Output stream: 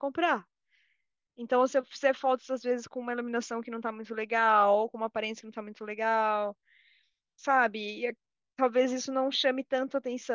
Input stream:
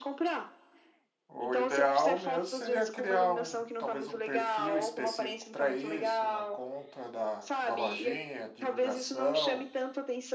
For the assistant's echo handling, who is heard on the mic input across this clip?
both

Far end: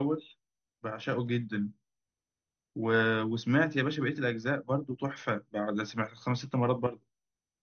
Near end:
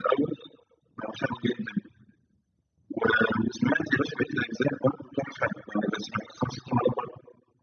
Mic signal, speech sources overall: echo only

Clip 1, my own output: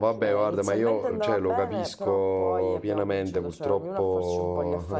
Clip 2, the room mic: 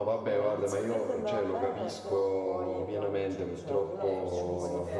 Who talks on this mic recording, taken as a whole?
both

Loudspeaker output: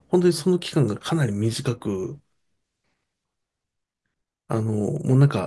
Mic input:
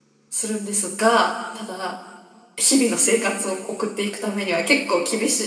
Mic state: user only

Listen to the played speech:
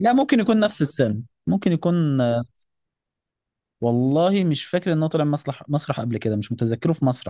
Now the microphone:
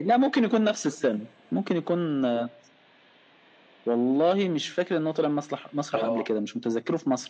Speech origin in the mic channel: both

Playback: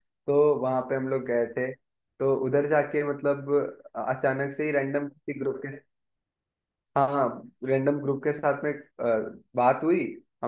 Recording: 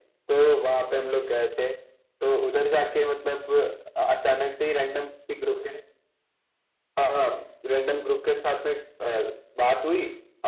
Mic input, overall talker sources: echo only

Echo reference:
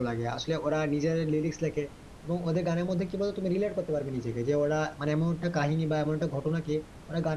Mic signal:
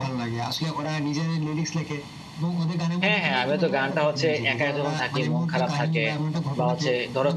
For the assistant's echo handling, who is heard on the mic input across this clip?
both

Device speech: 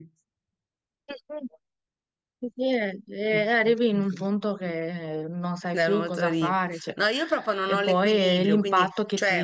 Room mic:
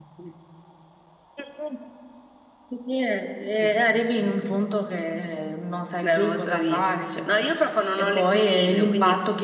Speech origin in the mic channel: echo only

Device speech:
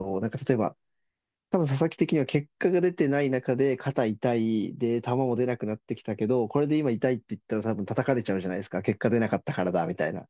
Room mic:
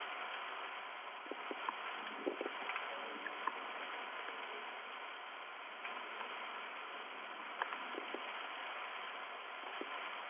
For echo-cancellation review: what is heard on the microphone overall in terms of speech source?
neither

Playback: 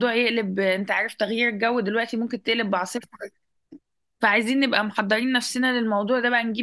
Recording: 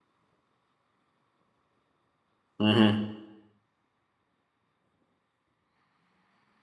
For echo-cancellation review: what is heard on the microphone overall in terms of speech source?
user only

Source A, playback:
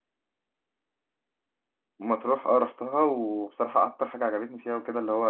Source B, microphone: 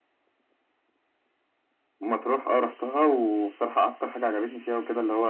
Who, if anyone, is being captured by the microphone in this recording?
echo only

